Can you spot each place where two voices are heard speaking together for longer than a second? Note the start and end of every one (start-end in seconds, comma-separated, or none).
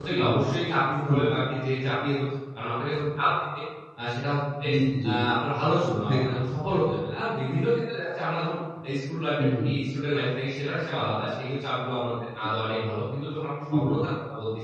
none